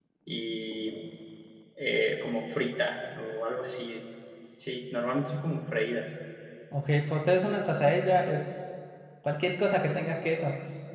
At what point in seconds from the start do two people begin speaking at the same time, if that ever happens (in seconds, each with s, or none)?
none